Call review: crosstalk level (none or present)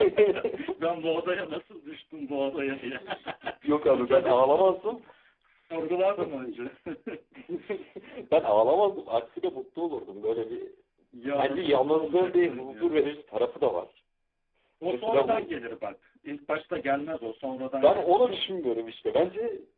present